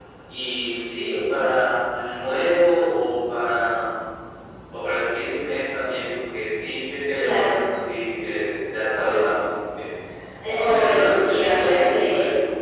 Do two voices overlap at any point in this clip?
Yes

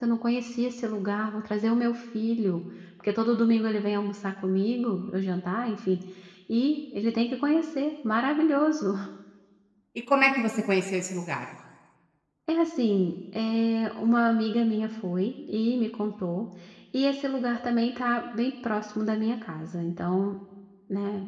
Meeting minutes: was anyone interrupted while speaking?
No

